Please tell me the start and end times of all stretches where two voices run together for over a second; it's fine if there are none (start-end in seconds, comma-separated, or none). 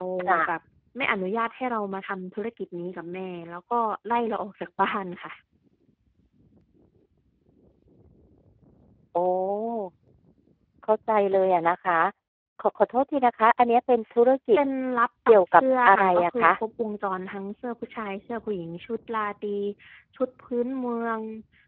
15.3-16.5